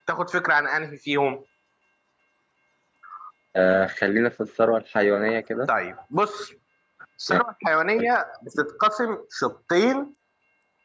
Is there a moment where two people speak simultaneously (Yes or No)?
No